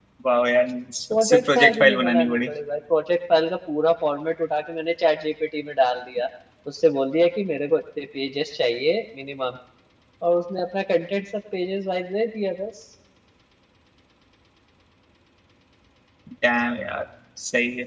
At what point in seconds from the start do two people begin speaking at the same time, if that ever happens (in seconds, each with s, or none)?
1.3 s